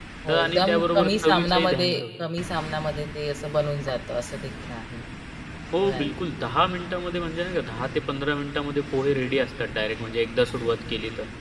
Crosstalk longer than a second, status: present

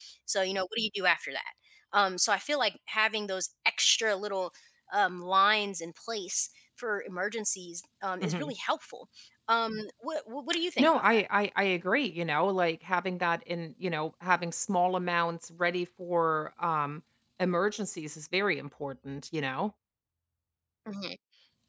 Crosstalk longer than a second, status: none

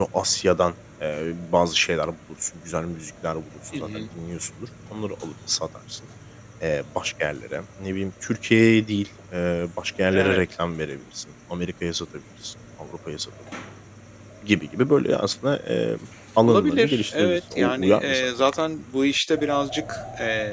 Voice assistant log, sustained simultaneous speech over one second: present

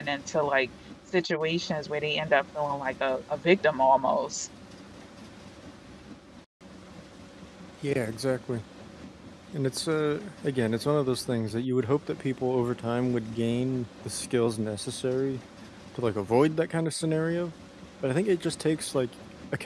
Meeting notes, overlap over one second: none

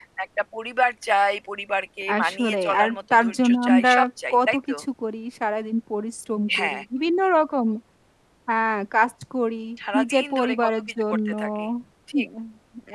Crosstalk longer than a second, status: present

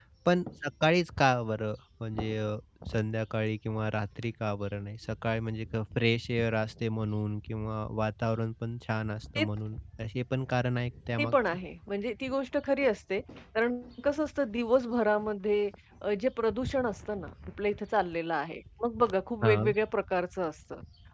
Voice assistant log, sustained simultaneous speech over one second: none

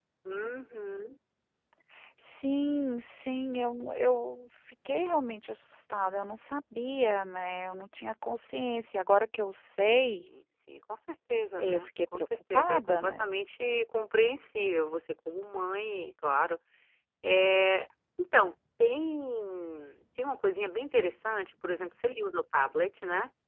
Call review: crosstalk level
present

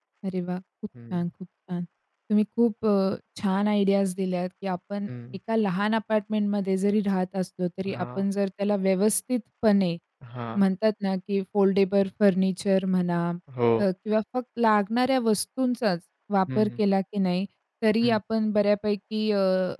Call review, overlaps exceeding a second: none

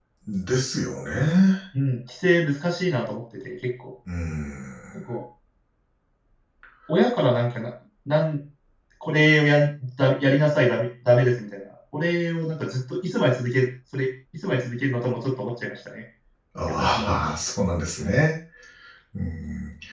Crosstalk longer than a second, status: none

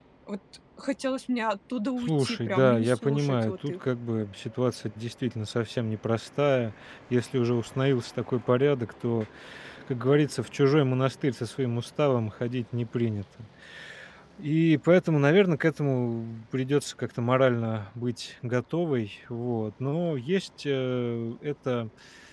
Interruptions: present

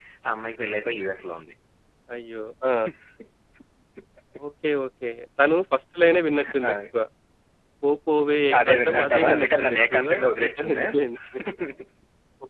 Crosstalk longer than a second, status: present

